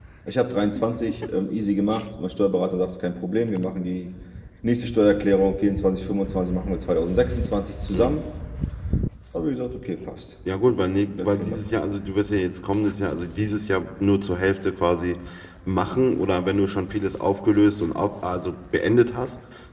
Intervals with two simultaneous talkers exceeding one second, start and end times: none

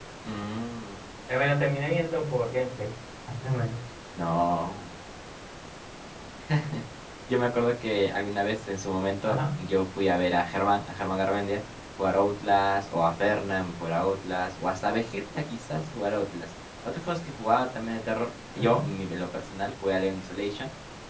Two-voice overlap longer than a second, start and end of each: none

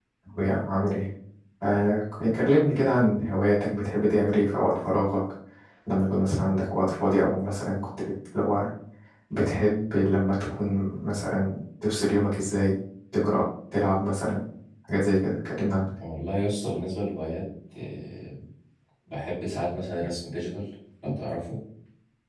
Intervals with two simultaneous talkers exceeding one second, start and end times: none

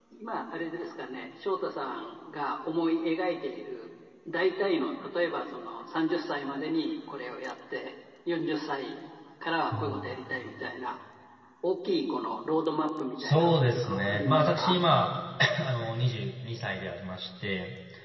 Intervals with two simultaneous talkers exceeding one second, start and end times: 13.2-14.8

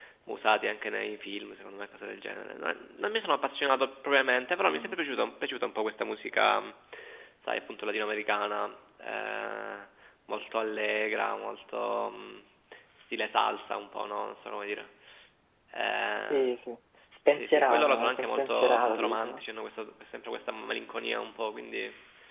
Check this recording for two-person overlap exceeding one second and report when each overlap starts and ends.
17.3-19.4

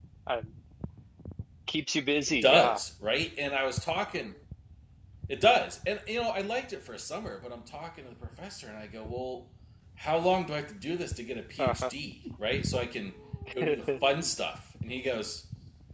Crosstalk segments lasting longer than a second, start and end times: none

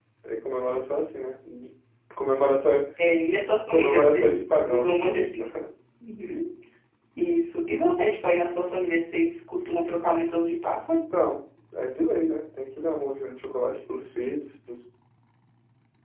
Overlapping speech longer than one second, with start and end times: 3.7-5.0

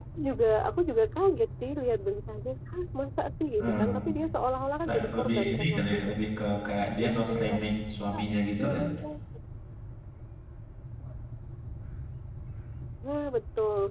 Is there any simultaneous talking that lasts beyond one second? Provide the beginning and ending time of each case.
4.8-6.1

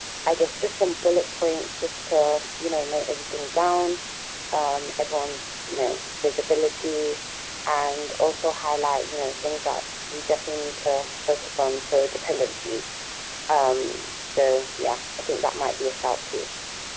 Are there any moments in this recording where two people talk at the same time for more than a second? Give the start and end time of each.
none

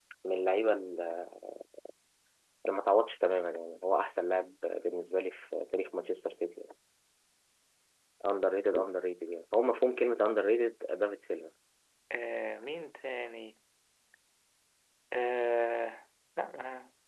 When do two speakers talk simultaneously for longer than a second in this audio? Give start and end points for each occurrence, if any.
none

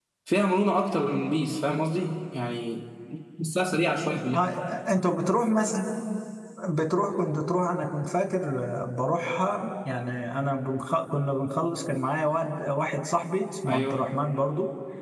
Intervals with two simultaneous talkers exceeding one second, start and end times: none

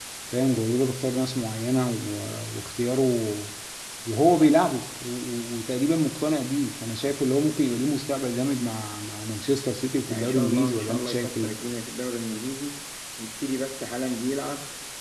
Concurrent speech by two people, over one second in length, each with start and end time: 10.1-11.5

